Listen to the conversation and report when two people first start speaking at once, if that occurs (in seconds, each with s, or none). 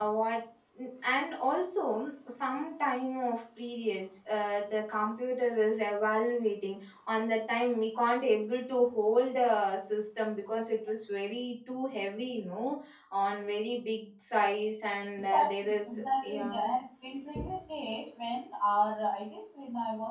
15.3 s